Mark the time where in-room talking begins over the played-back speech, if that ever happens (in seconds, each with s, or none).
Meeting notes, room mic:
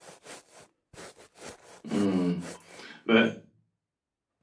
1.9 s